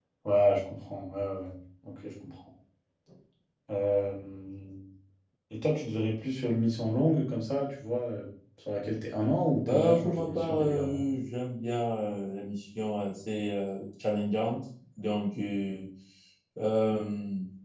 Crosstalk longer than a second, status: present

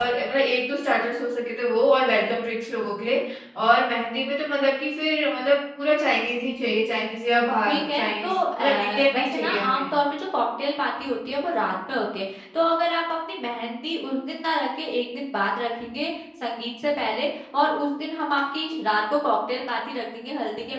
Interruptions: present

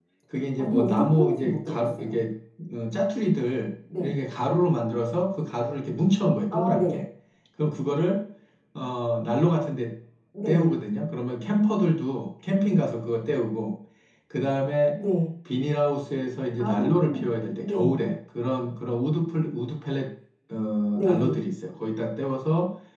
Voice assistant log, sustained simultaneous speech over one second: present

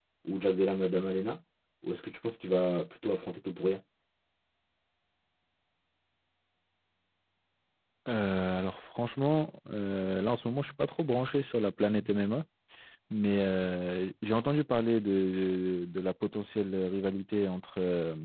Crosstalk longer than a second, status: none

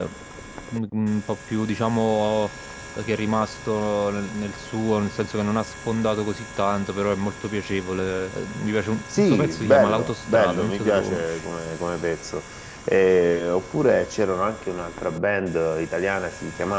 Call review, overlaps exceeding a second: present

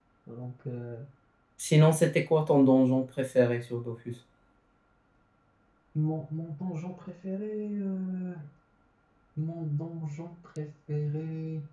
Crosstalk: none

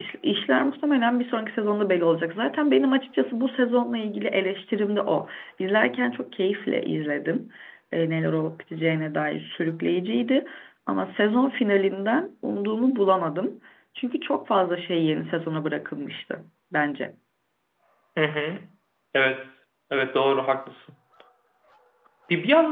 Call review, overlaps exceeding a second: none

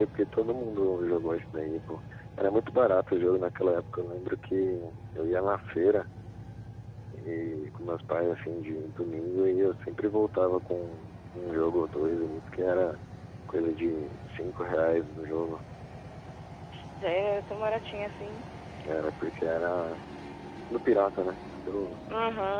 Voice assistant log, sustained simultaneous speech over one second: none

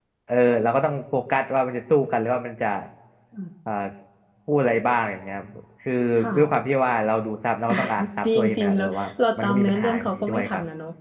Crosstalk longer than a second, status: present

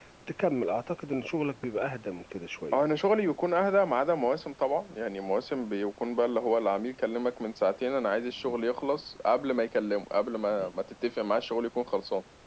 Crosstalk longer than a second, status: none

